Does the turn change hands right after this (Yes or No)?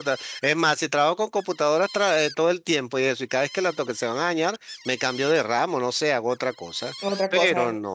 No